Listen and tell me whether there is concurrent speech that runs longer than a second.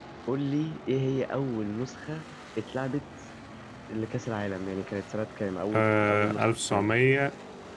Yes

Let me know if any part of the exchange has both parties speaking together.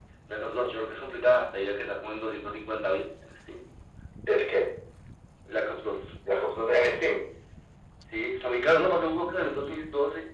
No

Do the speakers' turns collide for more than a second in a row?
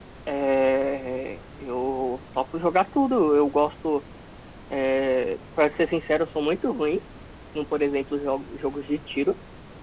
No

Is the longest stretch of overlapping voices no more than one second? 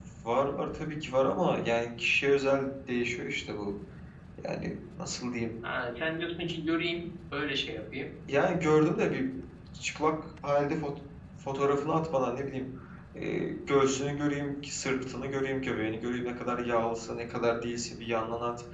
Yes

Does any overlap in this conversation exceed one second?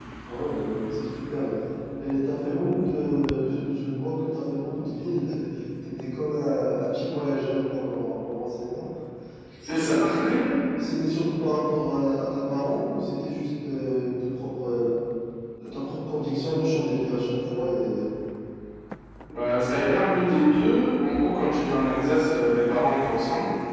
No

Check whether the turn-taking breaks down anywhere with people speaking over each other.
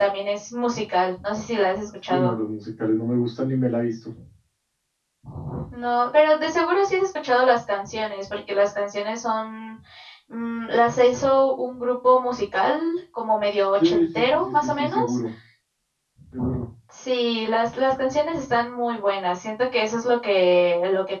Yes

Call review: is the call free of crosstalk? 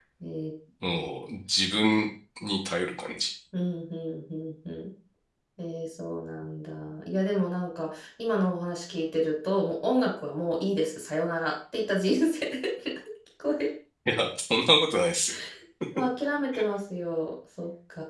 Yes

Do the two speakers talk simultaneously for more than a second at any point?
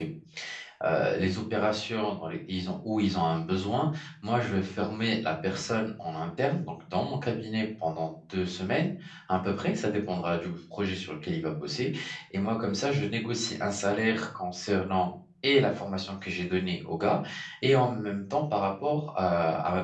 No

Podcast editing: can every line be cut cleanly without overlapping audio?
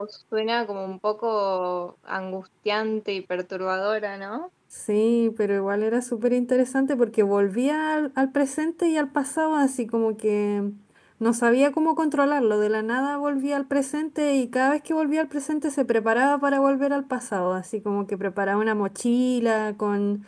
Yes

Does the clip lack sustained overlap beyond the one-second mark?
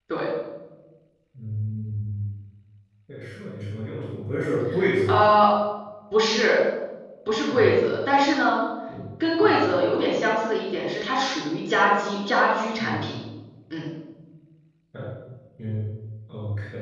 Yes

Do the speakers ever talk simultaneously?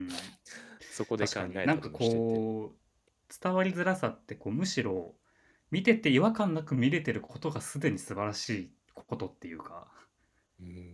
Yes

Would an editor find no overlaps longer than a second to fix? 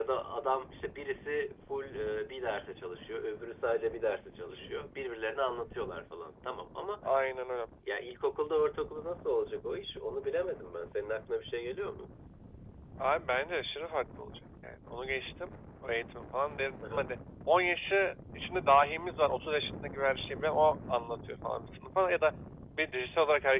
Yes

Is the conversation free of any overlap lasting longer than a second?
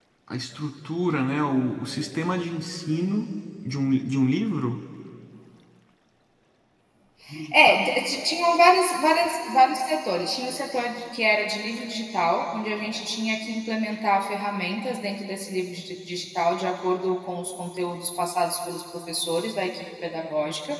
Yes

